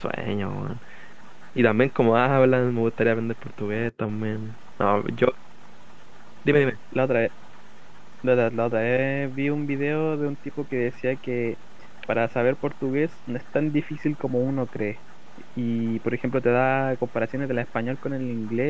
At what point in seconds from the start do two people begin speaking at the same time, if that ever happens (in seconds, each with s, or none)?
none